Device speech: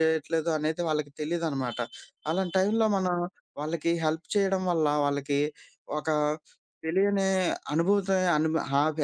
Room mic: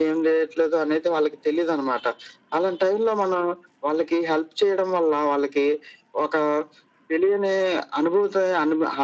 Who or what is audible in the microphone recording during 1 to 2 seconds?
echo only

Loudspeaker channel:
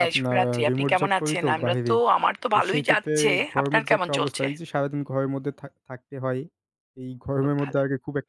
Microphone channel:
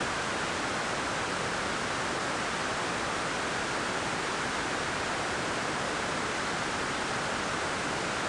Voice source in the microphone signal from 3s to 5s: neither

